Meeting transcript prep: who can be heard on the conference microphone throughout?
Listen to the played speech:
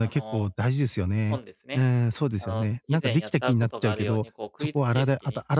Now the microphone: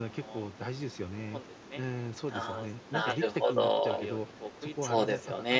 both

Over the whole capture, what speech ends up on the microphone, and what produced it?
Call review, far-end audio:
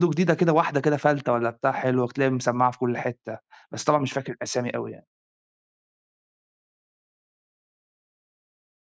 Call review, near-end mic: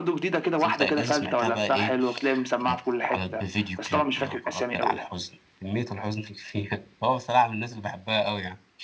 both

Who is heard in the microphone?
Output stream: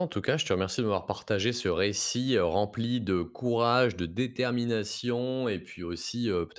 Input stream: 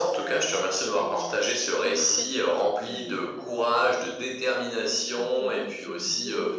both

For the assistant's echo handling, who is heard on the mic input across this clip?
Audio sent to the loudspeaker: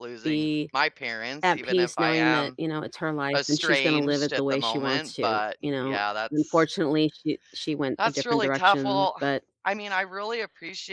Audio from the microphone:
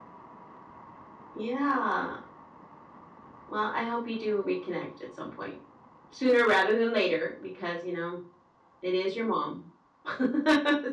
user only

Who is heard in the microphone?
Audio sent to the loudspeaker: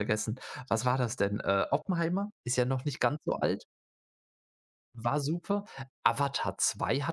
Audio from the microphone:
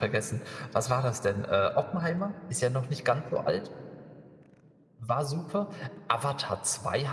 echo only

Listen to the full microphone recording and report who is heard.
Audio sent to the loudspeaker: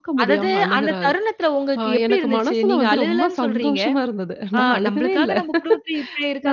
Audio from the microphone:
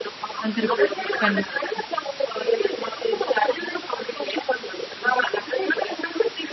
both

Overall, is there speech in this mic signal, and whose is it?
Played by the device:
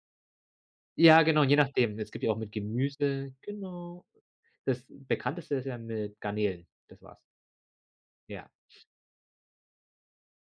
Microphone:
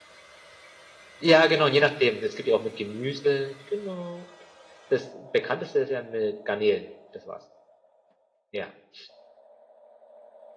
echo only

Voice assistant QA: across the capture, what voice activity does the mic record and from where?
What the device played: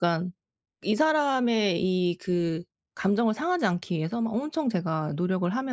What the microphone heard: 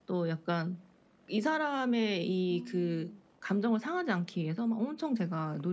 both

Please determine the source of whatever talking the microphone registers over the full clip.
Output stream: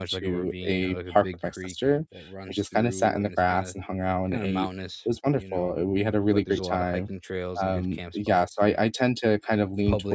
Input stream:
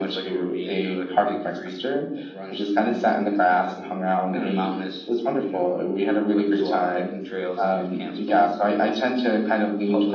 echo only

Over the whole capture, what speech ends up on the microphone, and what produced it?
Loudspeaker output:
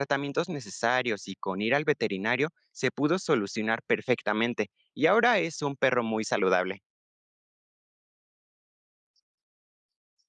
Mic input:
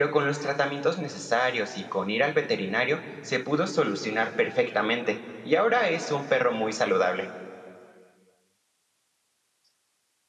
echo only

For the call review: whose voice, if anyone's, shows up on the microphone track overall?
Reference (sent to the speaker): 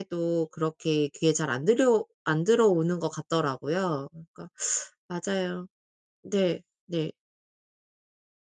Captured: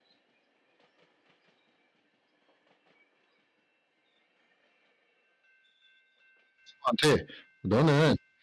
user only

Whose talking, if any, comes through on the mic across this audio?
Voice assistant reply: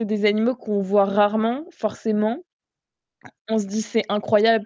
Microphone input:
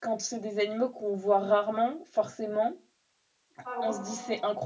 both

